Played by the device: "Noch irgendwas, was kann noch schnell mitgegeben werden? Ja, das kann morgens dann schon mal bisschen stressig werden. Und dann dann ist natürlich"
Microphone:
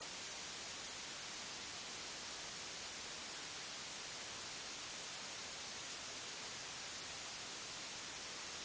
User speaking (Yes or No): No